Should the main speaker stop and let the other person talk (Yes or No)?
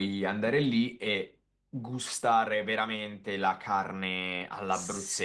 Yes